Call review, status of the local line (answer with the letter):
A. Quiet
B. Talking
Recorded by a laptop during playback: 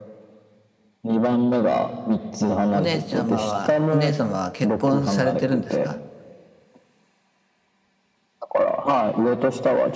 B